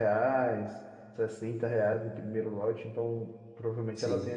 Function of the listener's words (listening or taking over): taking over